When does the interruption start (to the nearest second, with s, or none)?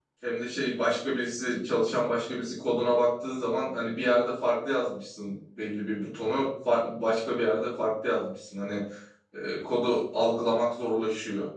none